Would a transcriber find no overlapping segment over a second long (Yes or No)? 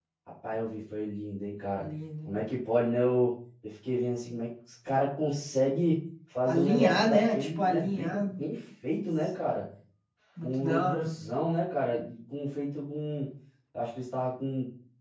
No